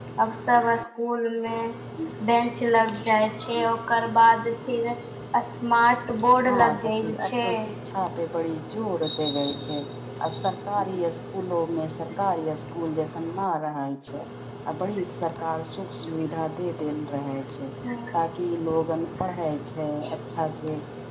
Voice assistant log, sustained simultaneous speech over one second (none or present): present